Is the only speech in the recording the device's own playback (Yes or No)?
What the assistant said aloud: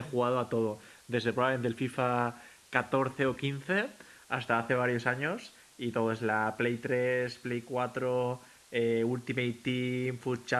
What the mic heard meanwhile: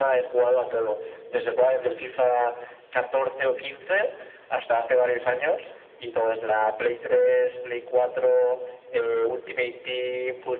Yes